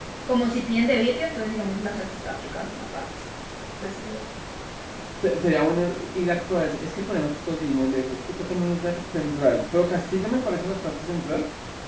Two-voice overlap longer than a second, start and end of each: none

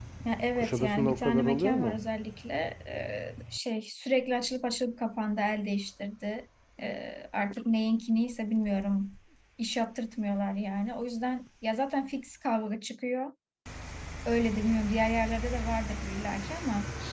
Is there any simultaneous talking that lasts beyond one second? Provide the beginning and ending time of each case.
0.6-2.0

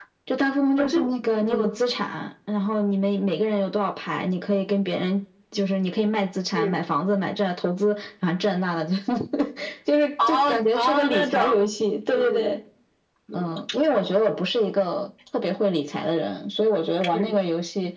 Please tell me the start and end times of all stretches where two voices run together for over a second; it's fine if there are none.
10.3-11.7

